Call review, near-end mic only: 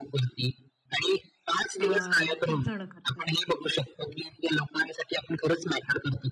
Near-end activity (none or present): present